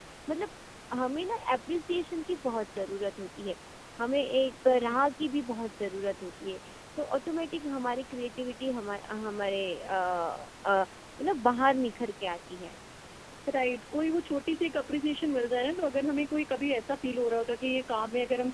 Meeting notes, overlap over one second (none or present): none